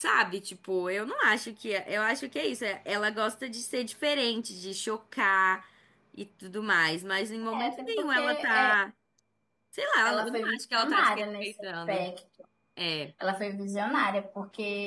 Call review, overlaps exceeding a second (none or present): present